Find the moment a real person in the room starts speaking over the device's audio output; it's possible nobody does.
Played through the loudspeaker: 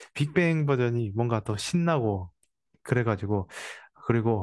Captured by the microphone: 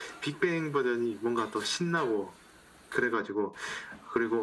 none

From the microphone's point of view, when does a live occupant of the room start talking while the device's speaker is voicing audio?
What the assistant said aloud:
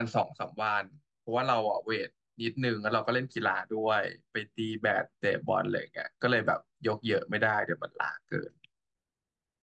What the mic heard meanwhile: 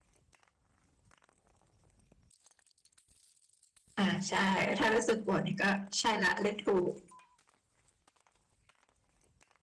4.0 s

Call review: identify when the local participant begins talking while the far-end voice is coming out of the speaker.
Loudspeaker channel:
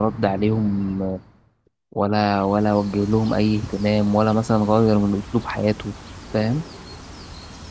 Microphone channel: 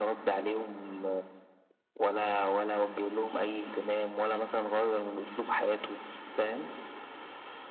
none

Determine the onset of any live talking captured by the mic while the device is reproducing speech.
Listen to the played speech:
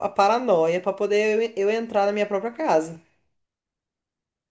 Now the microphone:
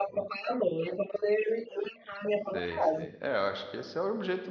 2.4 s

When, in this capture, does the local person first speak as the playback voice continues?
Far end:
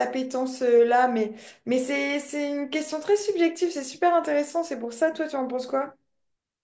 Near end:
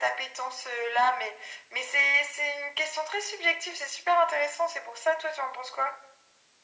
none

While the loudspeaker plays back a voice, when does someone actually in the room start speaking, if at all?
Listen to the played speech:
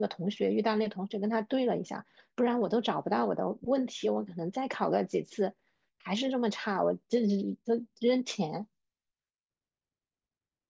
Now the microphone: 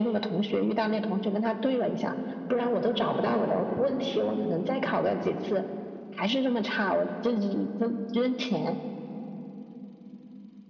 none

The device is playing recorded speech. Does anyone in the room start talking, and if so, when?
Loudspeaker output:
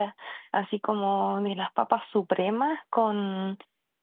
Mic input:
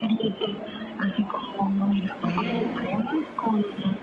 2.2 s

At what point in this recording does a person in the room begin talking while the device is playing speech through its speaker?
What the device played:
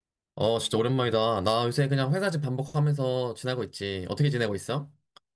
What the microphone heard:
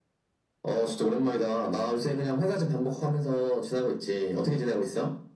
none

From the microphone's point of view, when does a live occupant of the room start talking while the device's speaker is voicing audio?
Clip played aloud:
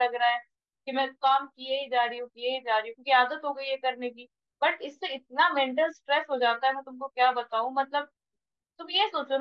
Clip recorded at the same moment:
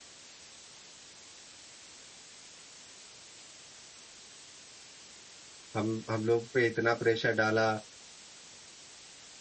5.7 s

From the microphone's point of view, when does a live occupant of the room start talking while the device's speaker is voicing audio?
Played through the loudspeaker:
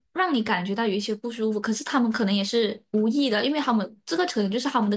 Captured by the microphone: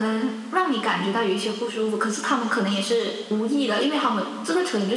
none

